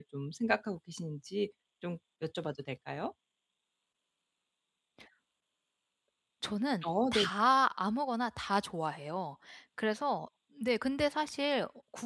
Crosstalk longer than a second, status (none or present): none